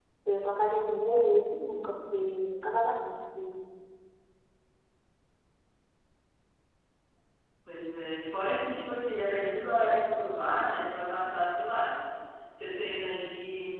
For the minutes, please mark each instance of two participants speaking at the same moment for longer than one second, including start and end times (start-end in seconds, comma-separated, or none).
none